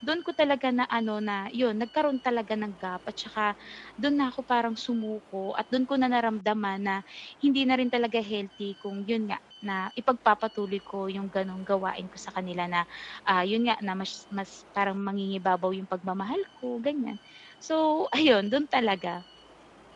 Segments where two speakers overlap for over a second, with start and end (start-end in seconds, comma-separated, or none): none